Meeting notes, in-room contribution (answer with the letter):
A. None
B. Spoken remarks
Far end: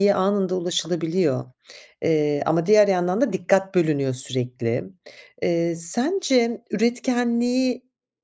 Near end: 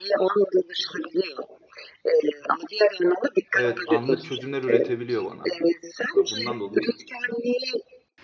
B